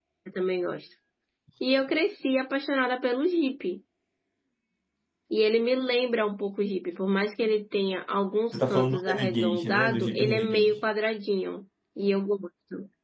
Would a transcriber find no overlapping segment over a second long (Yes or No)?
No